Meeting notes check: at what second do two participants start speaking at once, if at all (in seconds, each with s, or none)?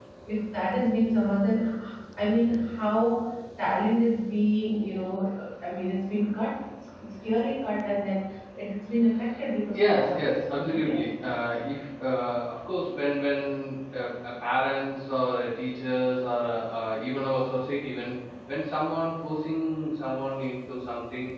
9.7 s